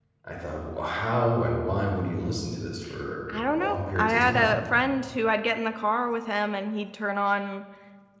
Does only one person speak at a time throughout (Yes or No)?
No